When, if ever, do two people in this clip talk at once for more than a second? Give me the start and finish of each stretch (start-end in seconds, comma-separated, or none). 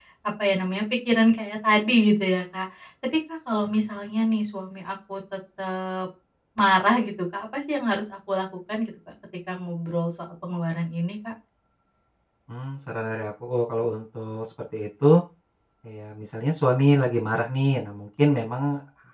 none